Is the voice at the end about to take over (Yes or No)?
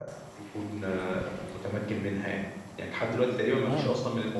No